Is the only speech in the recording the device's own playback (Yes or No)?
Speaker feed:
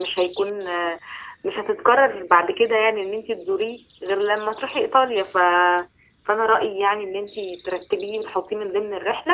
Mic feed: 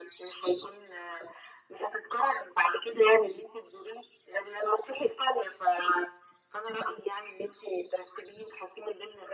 Yes